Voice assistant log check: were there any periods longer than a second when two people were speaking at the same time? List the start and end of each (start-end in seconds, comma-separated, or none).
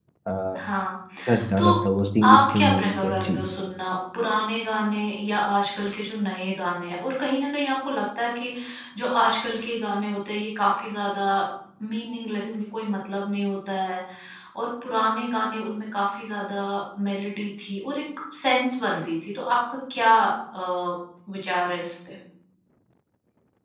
2.2-3.5